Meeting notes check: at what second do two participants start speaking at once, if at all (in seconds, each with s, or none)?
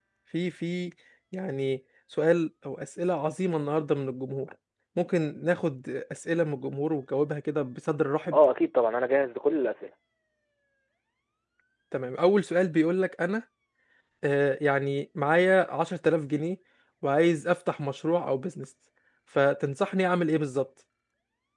none